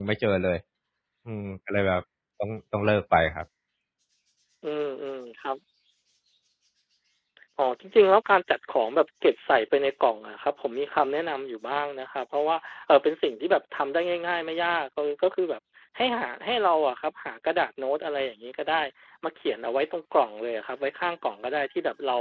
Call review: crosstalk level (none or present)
none